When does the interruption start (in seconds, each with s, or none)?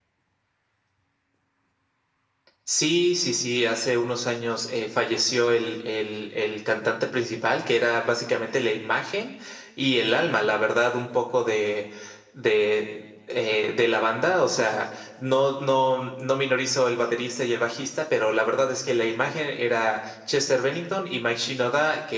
none